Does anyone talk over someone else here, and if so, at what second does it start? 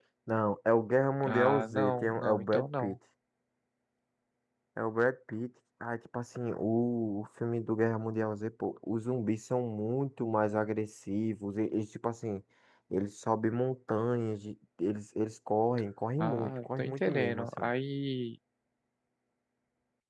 1.3 s

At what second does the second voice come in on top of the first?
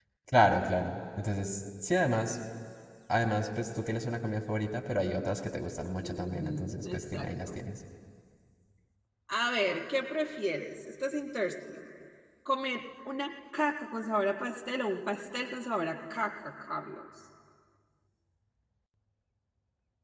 6.0 s

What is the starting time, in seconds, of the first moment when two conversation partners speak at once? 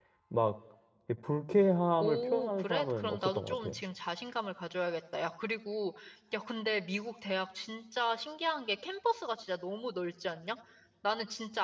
2.0 s

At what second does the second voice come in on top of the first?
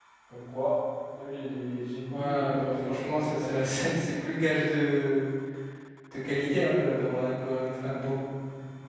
2.1 s

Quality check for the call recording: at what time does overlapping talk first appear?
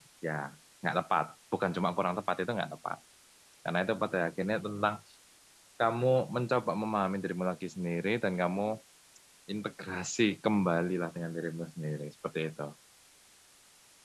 none

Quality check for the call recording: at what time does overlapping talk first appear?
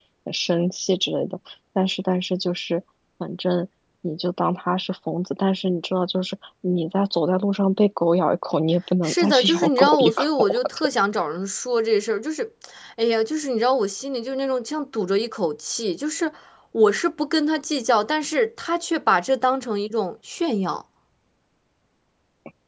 9.0 s

